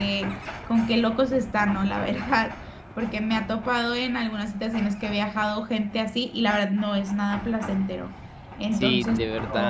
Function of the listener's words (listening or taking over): taking over